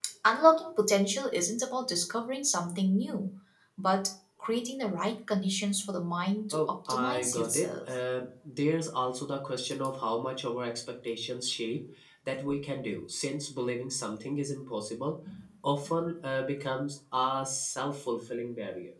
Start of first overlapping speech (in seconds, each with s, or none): 6.5 s